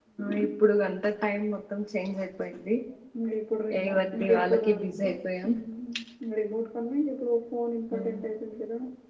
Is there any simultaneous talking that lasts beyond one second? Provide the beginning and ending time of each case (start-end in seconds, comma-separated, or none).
3.8-5.1